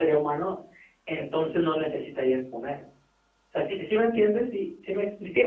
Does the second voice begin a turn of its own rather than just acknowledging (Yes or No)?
Yes